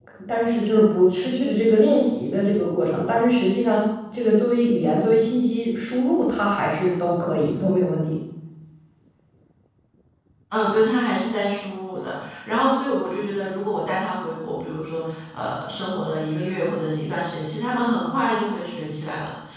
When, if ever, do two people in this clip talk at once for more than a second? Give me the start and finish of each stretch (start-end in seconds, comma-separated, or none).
none